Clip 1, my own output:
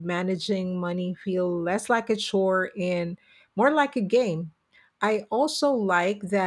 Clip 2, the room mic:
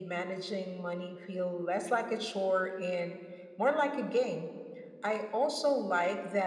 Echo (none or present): present